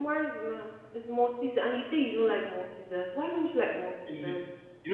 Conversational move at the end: taking over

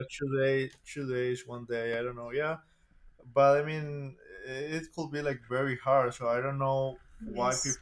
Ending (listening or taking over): listening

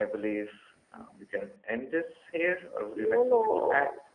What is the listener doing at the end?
taking over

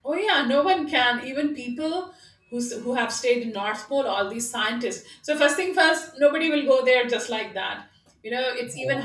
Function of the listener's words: listening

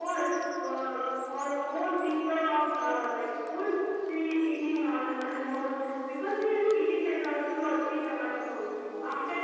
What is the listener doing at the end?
listening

